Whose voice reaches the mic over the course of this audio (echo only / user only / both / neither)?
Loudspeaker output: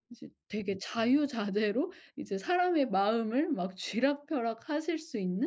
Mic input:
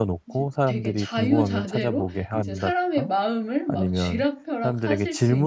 both